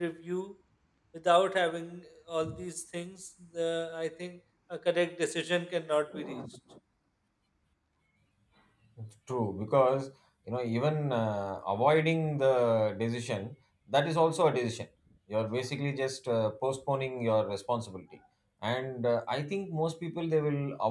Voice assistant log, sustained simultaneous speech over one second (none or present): none